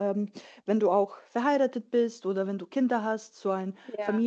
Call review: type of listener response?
taking over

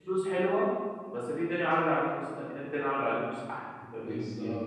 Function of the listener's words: taking over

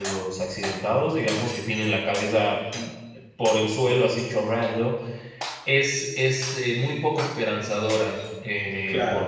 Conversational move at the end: taking over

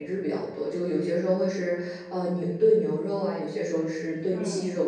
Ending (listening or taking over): taking over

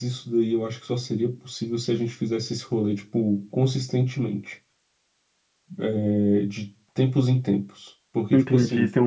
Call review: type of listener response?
taking over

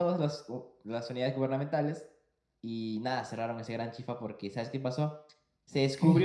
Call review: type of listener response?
listening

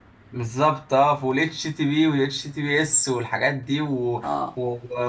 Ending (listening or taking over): listening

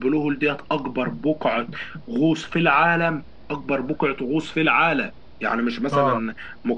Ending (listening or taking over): listening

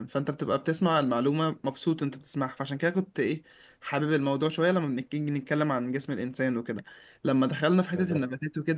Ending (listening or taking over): listening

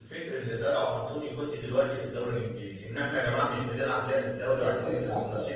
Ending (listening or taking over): taking over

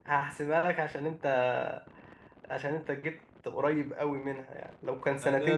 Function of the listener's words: taking over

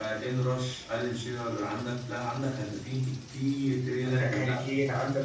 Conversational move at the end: taking over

